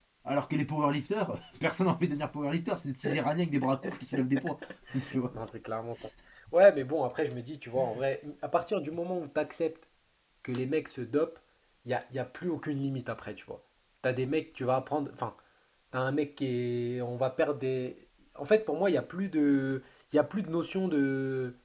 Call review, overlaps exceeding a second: none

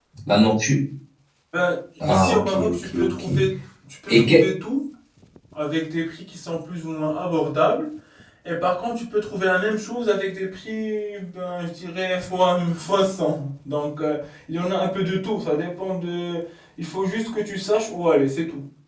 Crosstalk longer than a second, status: present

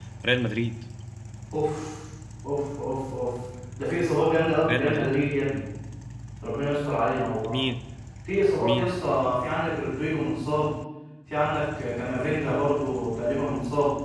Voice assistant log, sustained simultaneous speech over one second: none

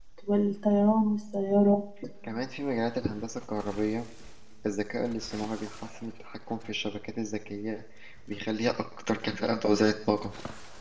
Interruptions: none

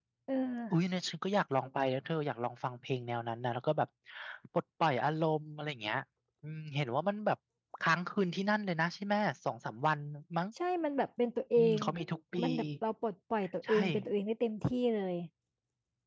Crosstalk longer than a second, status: none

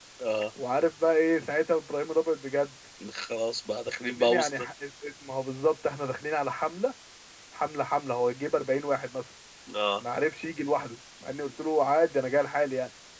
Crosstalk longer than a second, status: none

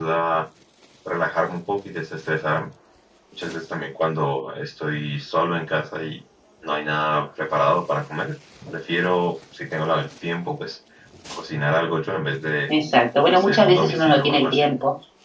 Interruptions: present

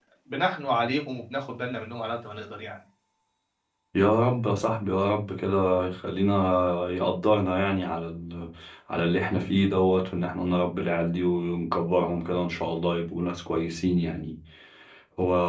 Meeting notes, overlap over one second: none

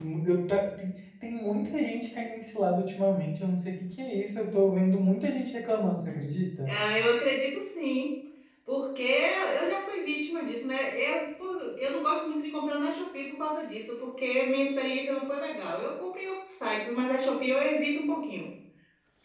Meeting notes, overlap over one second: none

